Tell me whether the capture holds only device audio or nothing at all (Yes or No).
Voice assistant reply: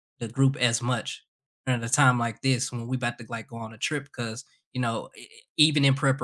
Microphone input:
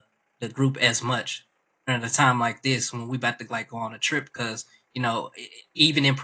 Yes